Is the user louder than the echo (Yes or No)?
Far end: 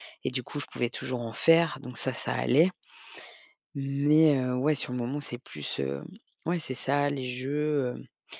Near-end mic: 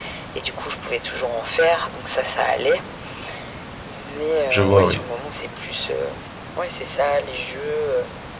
Yes